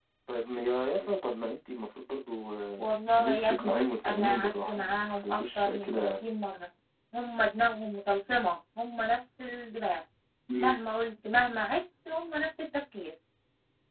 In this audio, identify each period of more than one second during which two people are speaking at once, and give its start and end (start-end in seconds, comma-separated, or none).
2.8-6.1